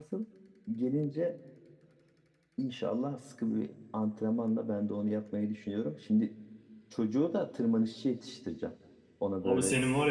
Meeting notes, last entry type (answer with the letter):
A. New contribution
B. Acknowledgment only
A